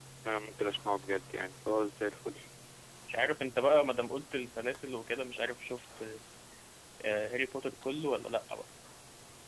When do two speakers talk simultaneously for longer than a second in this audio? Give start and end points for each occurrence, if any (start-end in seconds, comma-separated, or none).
none